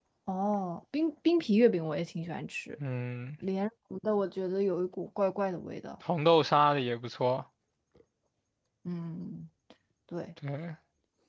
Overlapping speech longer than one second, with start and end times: none

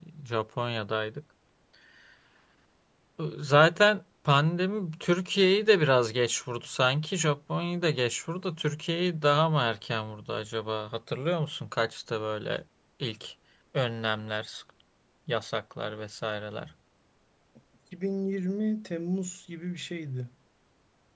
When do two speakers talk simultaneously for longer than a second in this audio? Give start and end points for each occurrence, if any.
none

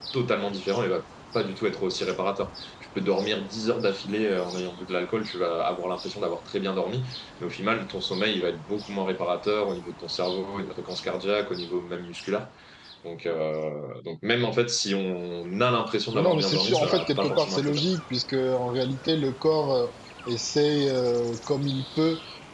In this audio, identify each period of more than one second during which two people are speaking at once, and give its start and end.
16.1-17.8

